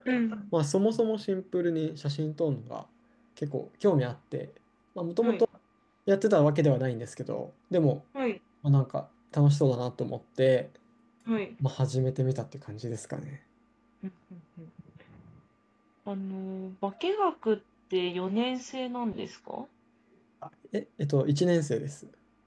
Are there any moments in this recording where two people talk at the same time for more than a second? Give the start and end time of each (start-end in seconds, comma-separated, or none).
none